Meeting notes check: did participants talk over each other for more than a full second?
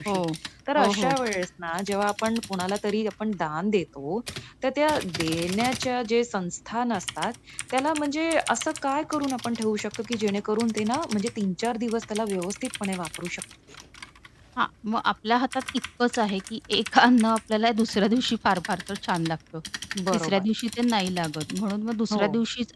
No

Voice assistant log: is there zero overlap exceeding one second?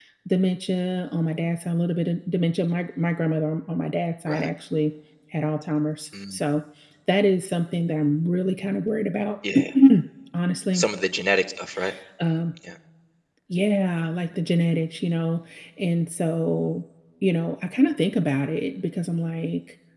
Yes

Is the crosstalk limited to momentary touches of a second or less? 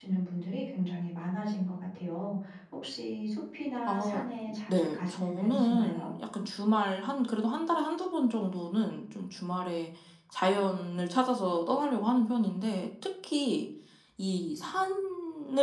No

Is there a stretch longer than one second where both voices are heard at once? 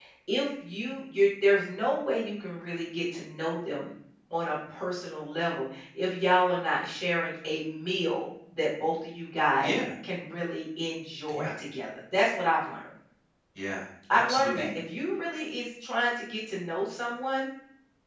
No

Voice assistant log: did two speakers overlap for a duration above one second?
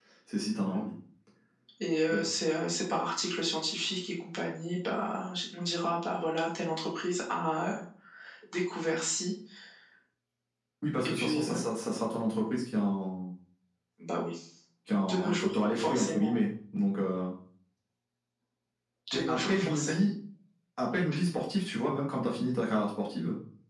Yes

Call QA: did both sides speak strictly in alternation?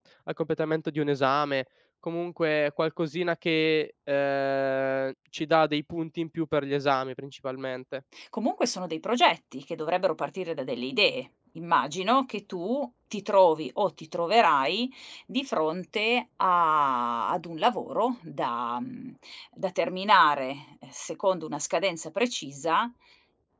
Yes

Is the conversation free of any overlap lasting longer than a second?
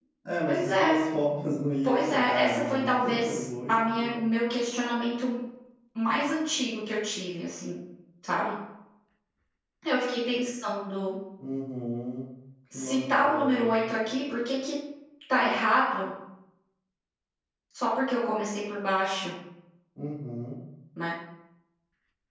No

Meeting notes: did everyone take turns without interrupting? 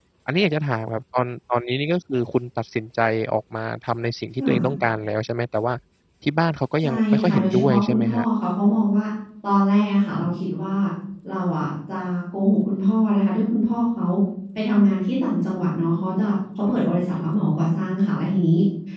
No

